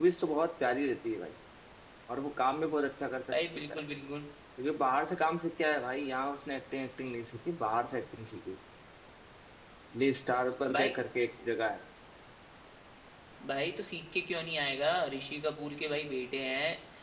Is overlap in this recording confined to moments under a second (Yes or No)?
Yes